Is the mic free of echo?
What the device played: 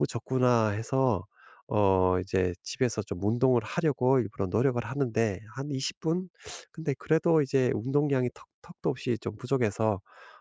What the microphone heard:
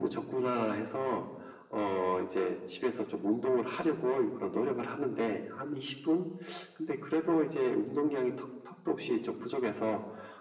No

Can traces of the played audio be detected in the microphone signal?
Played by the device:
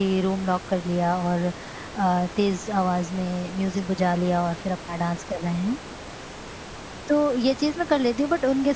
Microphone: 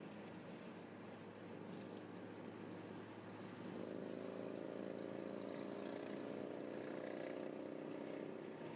No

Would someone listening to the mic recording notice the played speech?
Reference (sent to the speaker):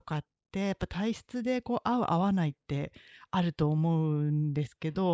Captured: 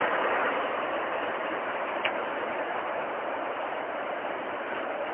No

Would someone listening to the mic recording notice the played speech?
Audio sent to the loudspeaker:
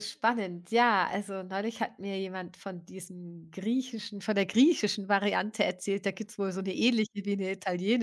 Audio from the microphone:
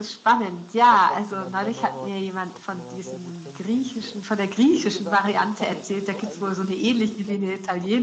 Yes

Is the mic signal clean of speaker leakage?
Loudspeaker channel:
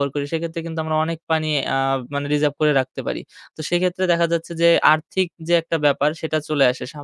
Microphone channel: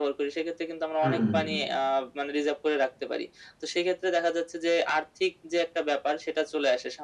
No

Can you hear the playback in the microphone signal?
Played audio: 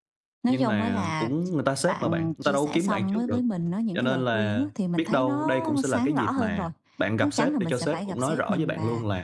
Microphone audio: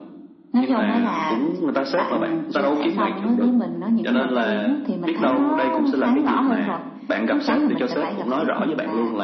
Yes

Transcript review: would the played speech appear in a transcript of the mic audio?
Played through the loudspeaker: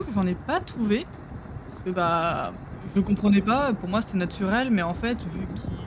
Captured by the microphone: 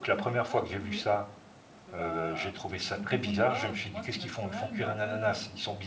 Yes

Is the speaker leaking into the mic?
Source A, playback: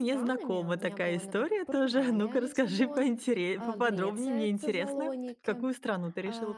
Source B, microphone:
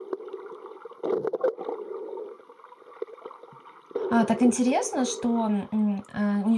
No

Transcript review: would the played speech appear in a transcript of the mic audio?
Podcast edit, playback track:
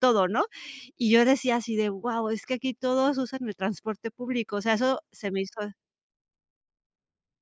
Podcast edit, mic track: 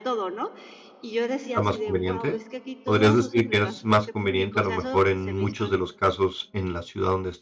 Yes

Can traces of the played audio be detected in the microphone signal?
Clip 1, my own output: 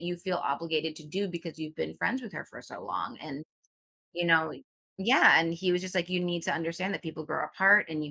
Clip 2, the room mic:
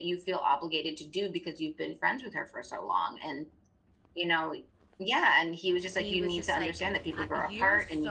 Yes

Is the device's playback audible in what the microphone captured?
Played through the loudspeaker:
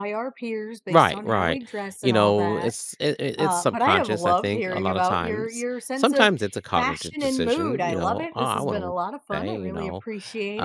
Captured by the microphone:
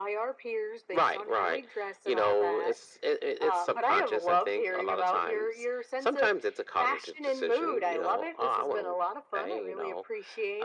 Yes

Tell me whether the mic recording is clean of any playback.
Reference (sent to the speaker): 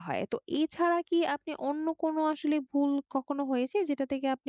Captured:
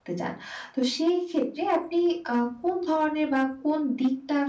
Yes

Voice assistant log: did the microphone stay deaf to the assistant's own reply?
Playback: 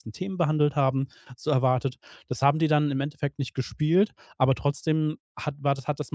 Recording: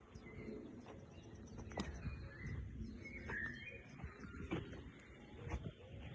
Yes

